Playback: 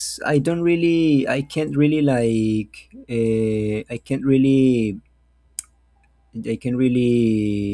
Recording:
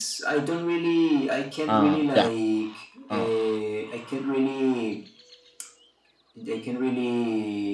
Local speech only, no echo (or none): uh yeah uh,